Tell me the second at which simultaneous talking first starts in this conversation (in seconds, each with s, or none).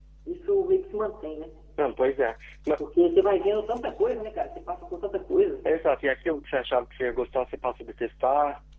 none